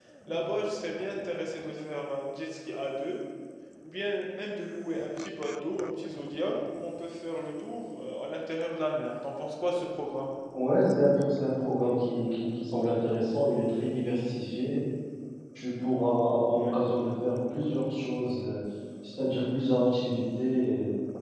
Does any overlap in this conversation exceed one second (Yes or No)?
No